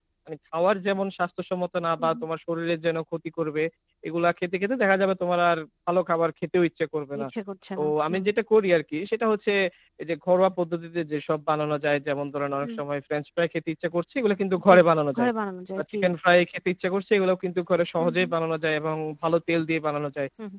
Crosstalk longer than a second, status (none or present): none